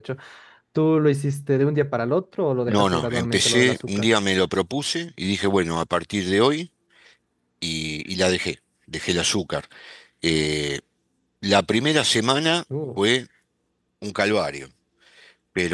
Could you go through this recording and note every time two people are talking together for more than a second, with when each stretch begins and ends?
2.7-4.1

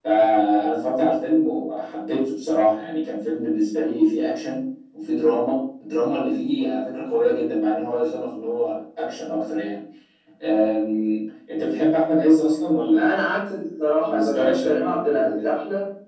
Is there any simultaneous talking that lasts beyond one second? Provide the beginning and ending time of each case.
14.0-15.4

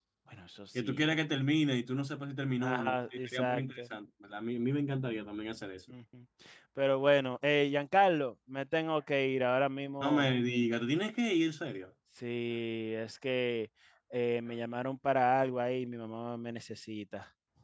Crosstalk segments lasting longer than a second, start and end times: 2.6-3.8

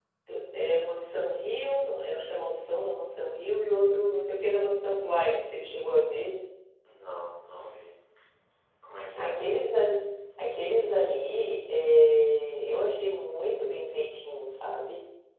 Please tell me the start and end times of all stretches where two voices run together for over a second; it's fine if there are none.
none

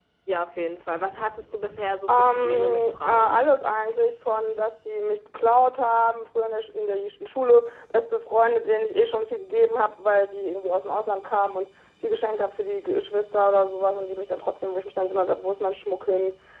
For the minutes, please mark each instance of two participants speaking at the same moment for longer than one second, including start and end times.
2.1-3.4

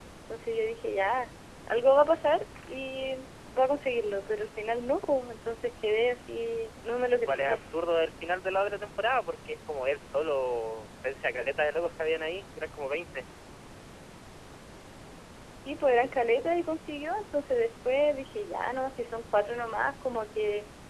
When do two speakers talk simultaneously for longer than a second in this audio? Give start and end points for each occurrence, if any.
none

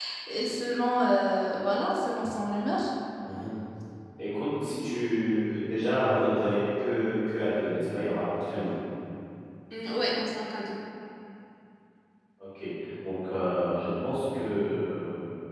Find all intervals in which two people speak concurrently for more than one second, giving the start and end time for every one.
none

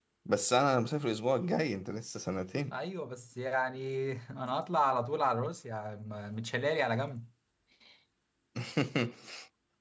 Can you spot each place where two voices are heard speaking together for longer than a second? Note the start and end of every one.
none

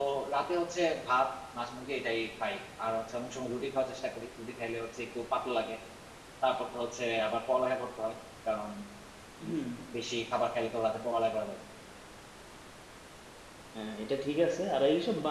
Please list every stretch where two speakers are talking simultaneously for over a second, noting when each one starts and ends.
none

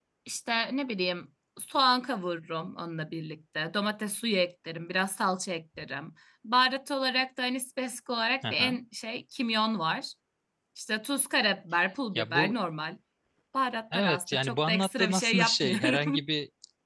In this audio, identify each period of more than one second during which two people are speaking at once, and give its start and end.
13.9-16.2

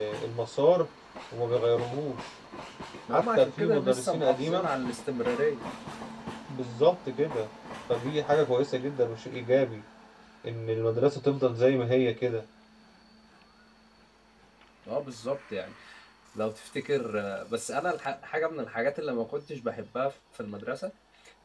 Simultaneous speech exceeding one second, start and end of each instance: 3.1-4.7

